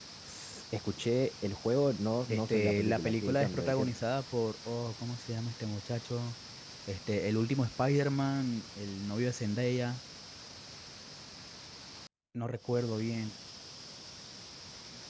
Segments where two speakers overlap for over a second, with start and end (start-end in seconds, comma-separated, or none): 2.3-3.9